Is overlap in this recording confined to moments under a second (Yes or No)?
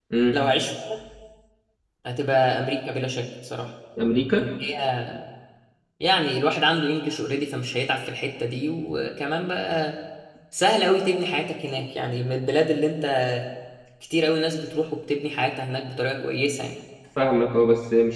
Yes